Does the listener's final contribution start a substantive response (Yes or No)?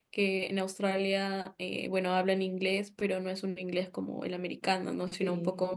No